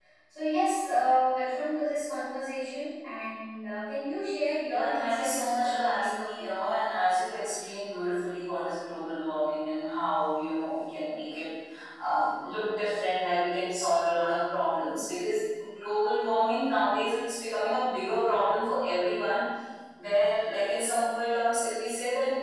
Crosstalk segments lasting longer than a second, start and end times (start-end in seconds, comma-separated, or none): 4.7-6.2